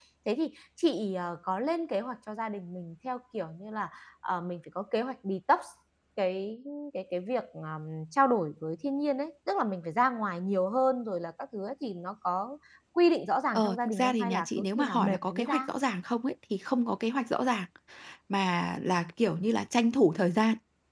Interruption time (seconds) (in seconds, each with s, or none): 13.6 s